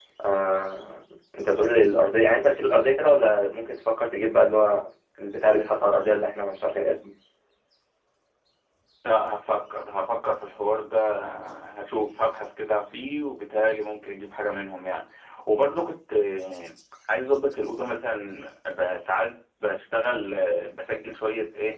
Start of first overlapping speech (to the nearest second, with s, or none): none